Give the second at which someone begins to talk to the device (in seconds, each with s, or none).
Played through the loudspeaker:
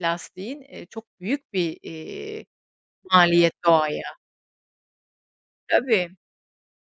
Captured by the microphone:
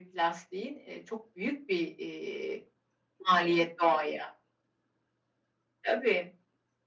none